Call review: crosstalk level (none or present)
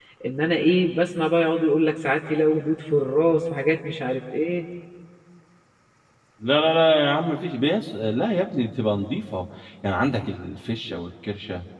none